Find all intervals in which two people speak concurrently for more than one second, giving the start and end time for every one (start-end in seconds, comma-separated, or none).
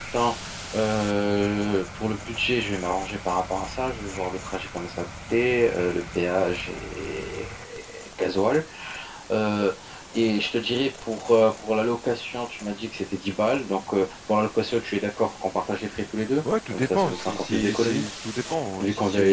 16.7-18.1